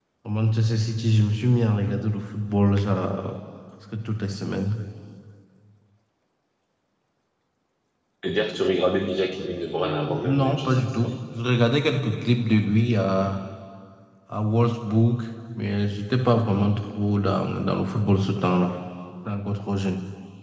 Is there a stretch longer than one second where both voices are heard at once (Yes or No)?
Yes